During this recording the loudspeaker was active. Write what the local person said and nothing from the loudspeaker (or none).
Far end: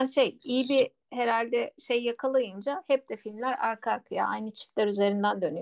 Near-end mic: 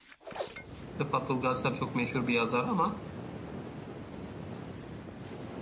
Rıfat Ilgaz tabii çok meşhur bir yazar ama